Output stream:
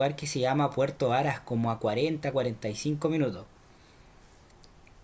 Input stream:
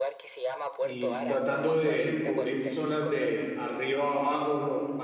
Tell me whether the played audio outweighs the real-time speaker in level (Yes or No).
No